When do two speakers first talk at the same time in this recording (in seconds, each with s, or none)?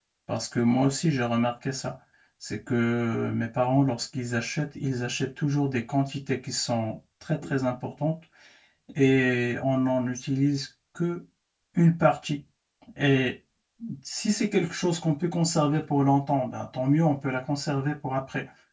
none